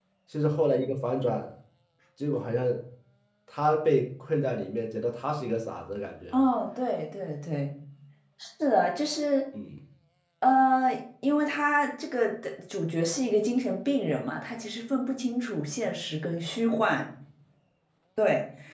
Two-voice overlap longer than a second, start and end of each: none

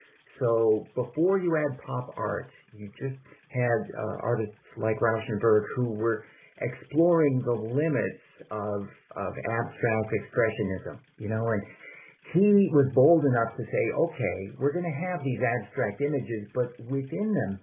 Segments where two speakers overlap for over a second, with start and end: none

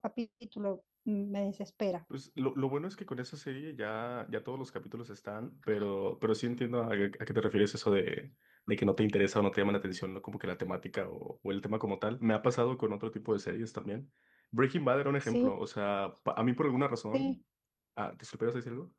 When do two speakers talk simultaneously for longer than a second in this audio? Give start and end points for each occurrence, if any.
none

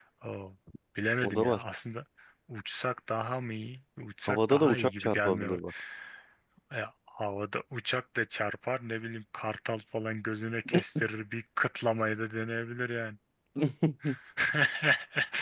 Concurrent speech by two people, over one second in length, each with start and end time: 4.3-5.5

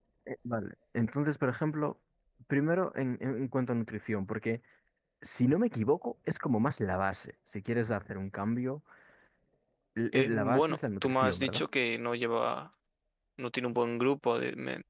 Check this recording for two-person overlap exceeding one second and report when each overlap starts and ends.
10.1-11.6

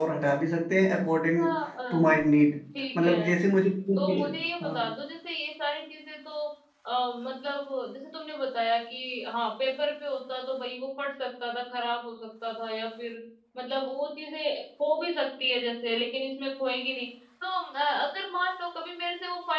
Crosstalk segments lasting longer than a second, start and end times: none

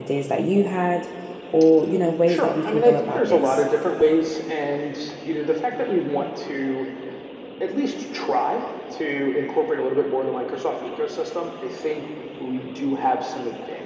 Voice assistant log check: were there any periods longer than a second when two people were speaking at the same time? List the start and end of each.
2.2-3.6

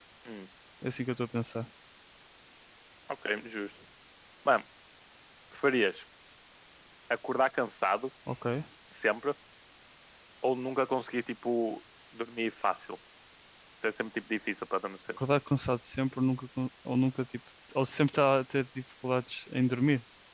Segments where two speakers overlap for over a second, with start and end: none

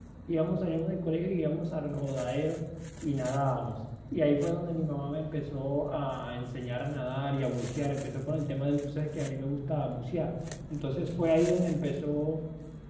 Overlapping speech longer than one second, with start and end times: none

